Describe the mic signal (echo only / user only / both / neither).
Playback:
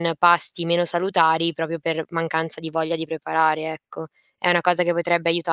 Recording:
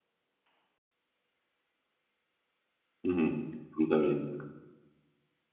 user only